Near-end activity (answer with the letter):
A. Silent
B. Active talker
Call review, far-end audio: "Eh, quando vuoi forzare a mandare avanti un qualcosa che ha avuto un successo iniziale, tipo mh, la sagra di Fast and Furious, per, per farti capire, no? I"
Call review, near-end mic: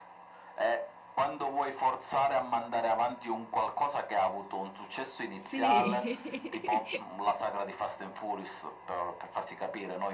B